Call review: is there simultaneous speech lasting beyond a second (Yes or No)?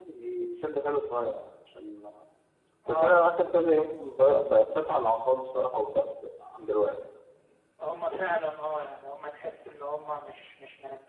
No